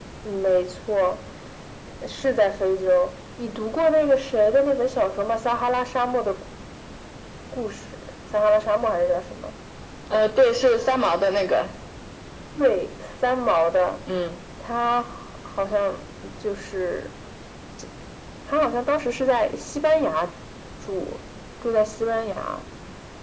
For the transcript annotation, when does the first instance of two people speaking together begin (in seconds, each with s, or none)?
none